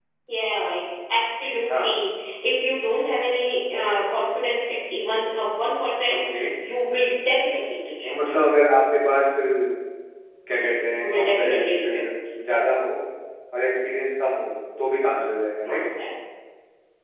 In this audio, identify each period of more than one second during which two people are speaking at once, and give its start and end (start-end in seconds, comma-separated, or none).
10.6-12.0